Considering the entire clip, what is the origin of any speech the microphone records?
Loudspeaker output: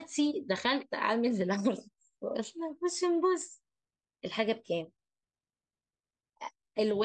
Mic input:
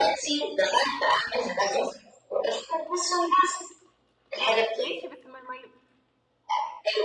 both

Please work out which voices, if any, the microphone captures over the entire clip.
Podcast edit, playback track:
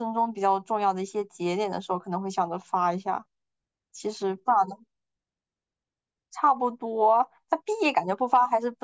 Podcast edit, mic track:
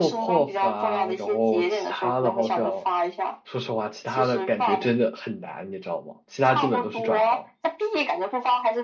both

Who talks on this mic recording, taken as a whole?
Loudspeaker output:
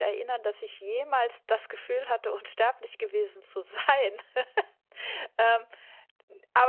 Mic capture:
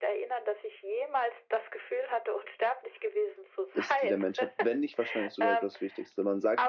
both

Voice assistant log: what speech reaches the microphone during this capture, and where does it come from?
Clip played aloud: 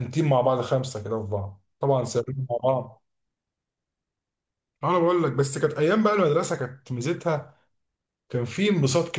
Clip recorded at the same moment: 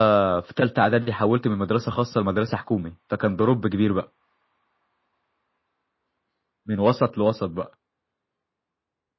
user only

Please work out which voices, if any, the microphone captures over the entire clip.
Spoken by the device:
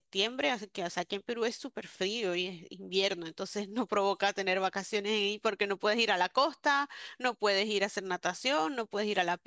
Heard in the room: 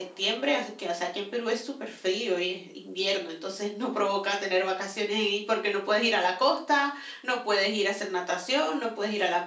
echo only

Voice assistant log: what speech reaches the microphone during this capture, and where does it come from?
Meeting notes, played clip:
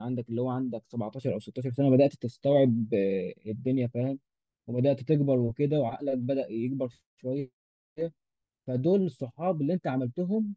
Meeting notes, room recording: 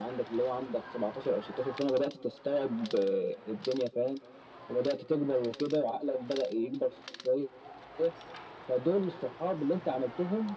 echo only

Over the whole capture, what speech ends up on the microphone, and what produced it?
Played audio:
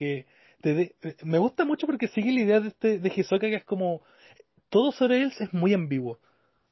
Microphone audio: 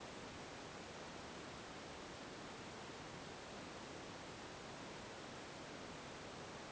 neither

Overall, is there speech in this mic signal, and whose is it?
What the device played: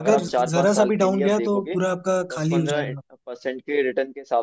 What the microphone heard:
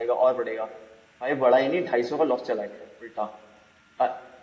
user only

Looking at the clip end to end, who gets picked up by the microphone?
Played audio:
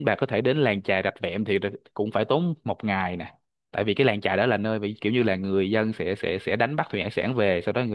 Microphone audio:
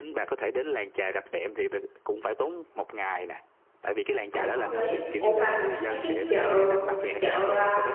both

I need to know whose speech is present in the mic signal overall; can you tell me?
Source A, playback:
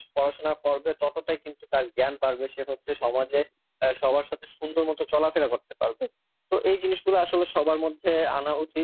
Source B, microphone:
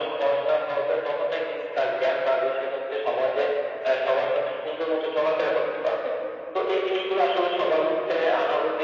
echo only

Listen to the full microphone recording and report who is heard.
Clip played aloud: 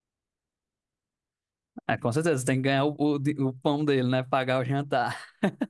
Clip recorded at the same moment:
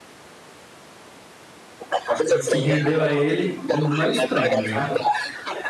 both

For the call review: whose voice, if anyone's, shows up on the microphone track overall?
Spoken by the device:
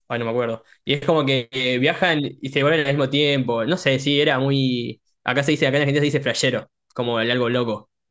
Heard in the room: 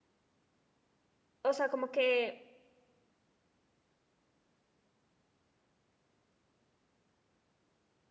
user only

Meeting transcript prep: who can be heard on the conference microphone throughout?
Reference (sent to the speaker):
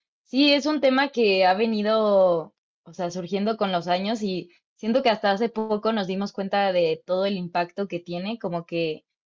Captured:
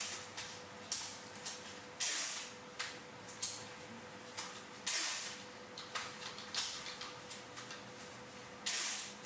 neither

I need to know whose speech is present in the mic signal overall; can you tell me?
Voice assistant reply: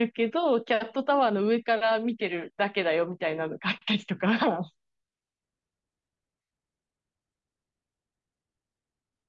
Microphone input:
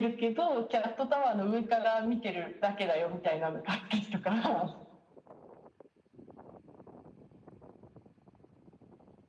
echo only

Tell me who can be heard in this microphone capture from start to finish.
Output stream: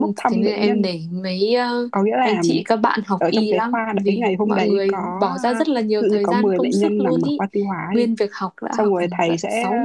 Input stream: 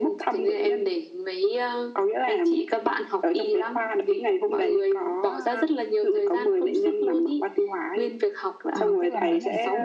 both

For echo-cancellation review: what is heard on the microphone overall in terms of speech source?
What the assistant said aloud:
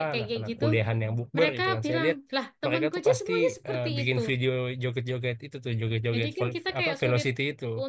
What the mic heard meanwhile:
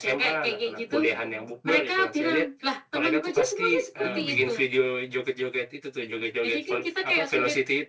both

